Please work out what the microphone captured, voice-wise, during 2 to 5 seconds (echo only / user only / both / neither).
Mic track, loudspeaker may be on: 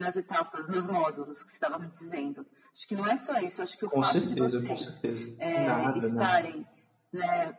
both